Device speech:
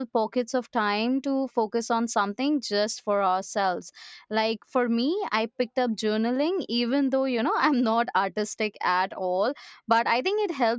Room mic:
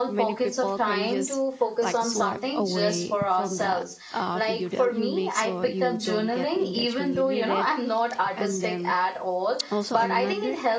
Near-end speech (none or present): present